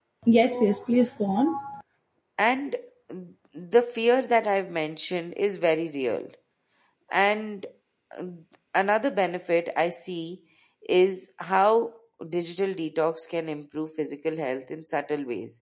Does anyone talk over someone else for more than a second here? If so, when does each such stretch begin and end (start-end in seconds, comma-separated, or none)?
none